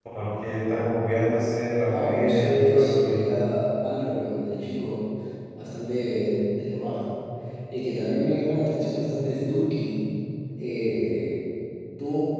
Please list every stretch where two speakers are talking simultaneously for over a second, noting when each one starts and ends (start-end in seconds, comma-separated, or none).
1.9-3.2